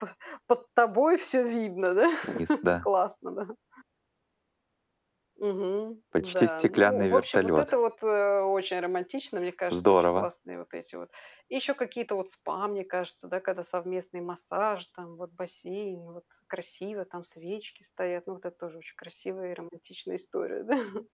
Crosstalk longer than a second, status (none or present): present